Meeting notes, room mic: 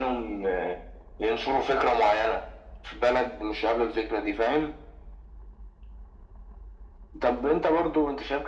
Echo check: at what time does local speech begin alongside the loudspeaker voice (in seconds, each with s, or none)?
none